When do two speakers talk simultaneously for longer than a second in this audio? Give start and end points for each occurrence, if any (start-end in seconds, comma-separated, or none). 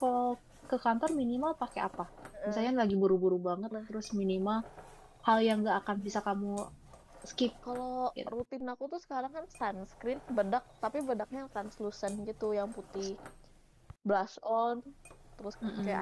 none